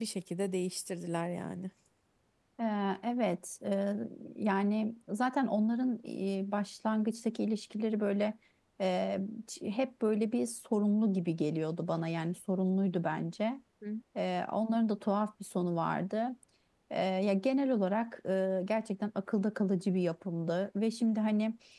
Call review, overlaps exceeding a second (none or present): none